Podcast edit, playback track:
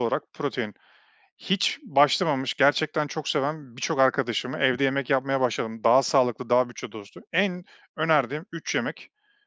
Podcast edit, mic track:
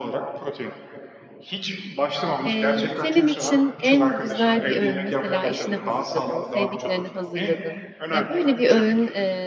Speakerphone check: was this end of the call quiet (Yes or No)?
No